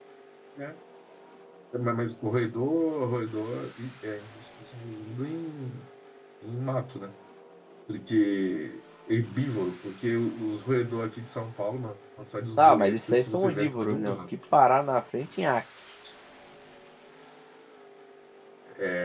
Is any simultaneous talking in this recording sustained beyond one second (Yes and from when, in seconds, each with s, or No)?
Yes, from 12.6 s